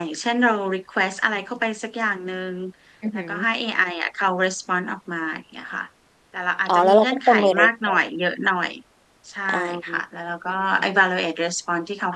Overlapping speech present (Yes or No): Yes